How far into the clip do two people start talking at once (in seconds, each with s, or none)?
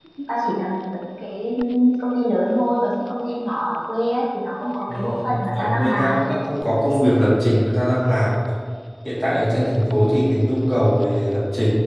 4.9 s